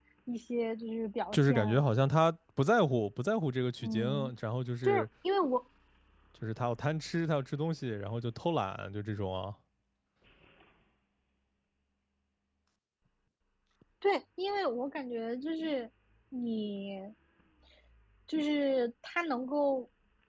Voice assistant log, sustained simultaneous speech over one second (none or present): none